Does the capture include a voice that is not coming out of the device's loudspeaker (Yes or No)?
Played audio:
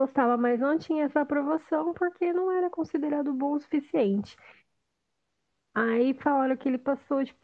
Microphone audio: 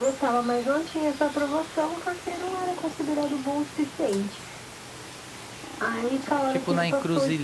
Yes